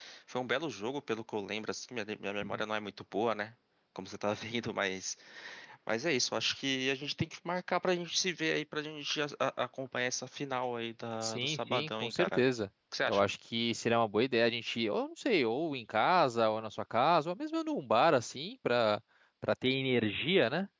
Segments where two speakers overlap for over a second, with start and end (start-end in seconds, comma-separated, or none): 11.2-12.4